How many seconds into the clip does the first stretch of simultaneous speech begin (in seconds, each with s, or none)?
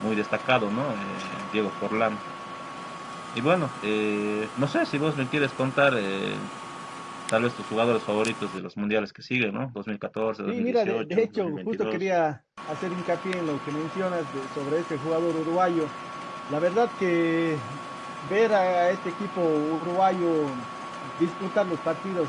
10.5 s